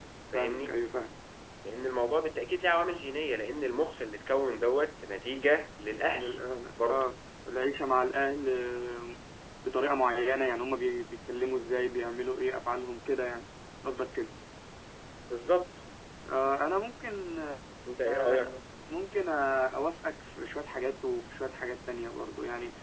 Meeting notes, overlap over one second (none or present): none